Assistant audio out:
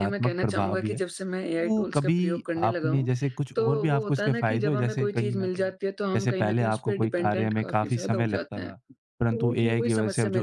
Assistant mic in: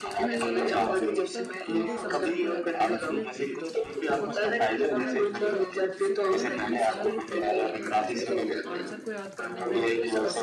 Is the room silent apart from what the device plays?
No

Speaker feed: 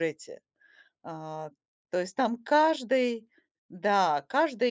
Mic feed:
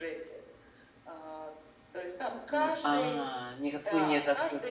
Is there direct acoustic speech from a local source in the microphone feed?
Yes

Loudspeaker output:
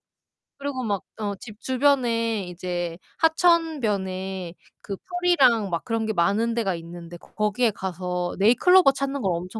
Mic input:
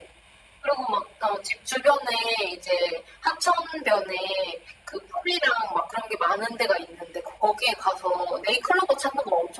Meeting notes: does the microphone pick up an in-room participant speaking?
No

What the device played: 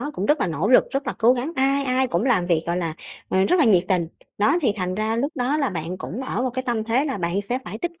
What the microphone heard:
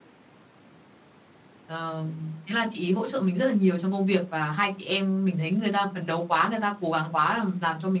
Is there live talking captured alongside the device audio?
Yes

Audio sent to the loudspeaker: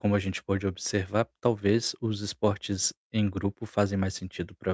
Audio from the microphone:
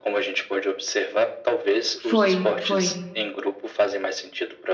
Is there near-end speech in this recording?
Yes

